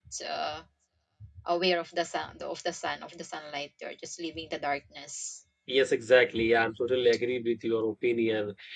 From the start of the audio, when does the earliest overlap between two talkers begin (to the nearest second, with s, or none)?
none